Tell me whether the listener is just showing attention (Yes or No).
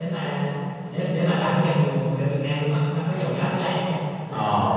Yes